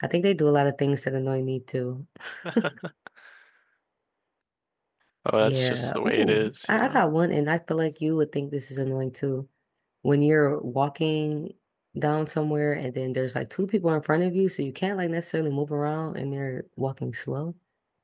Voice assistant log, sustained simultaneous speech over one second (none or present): present